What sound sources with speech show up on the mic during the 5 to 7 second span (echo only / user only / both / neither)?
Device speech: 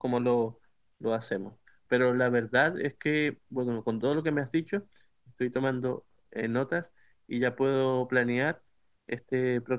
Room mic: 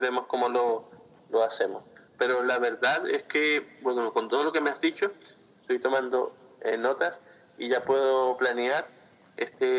echo only